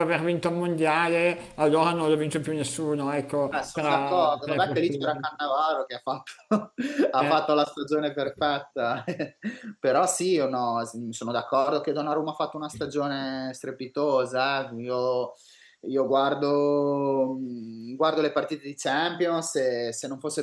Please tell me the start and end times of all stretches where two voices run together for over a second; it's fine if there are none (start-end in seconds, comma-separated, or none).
3.5-5.2